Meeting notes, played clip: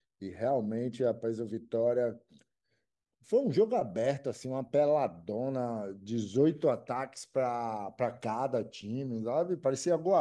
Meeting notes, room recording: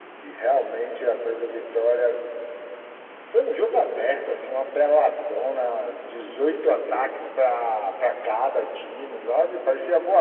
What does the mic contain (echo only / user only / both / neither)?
echo only